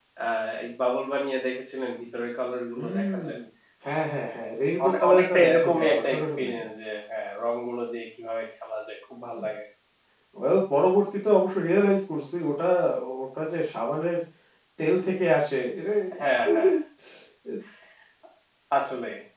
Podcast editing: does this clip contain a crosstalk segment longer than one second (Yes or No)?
Yes